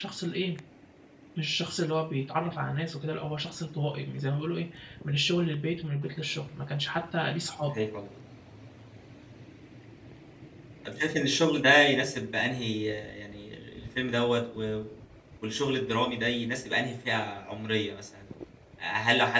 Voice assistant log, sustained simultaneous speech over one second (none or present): none